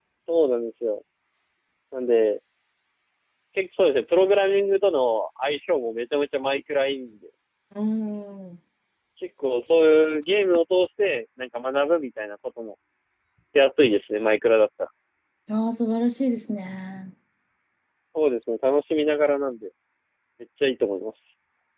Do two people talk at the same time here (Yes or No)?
No